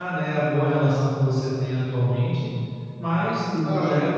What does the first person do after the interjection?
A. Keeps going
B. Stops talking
A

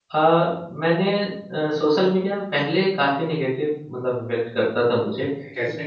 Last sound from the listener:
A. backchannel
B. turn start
A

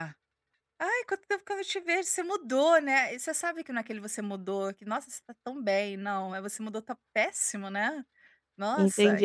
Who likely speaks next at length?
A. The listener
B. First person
A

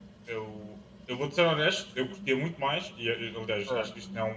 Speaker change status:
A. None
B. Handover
A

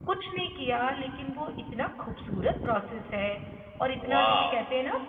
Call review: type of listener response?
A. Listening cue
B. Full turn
A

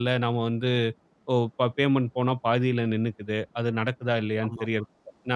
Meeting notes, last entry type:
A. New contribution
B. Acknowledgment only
B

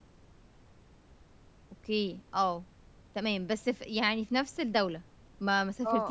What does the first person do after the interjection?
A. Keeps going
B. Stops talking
B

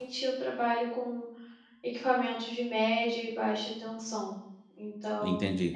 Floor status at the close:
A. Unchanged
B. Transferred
B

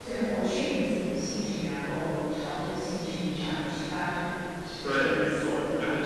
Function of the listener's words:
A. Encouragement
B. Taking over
B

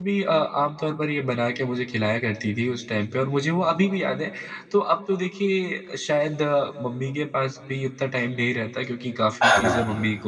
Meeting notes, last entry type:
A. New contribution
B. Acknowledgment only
B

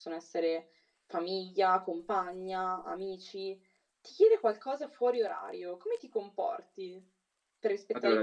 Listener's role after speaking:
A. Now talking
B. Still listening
B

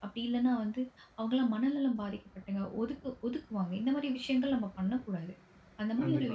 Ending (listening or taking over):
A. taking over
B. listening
B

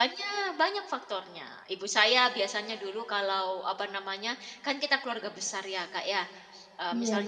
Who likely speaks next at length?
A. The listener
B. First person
B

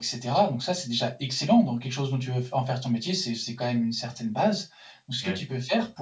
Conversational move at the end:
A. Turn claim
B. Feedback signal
B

